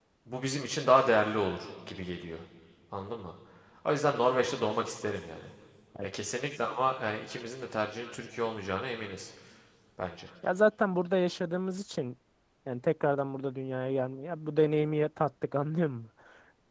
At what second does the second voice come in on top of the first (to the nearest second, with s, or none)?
none